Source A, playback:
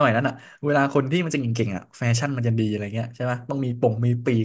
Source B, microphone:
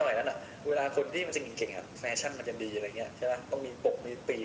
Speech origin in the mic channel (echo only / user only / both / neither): echo only